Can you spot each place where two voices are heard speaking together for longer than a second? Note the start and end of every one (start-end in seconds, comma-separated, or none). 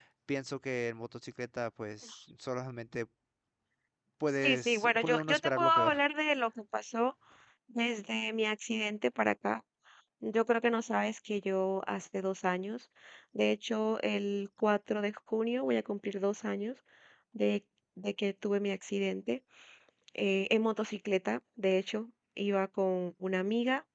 4.4-5.9